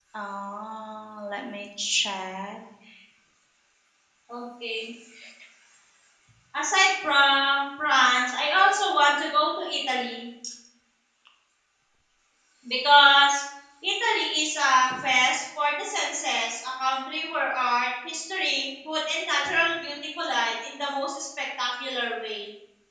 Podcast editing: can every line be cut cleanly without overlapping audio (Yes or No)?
Yes